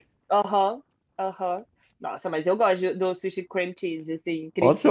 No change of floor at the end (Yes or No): No